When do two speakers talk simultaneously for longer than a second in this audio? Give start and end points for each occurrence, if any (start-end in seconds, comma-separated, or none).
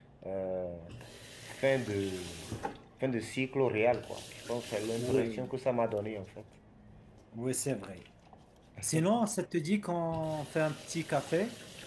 none